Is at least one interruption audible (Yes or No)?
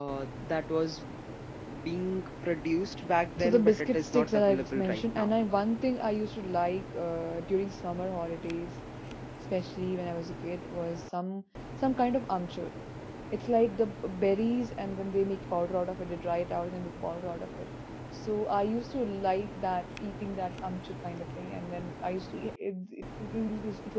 Yes